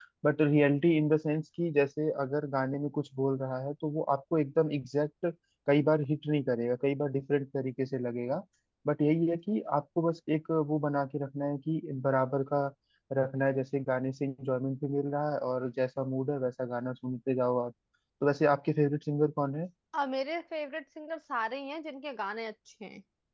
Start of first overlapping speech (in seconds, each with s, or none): none